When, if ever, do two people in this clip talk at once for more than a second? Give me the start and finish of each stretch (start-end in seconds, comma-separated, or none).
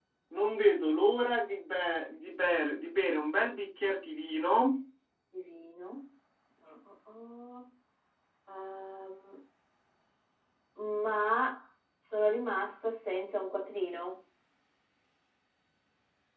none